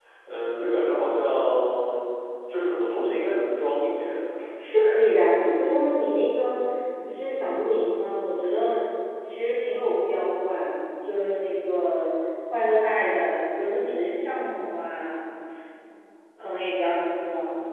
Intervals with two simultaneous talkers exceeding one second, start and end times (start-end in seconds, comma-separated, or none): none